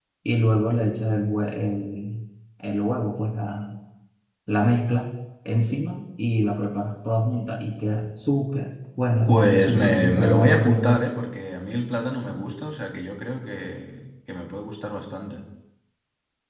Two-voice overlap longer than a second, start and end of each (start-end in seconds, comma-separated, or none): 9.3-11.0